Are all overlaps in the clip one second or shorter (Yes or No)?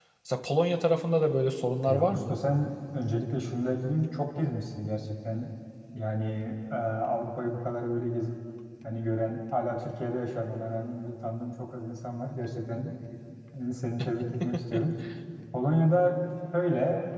Yes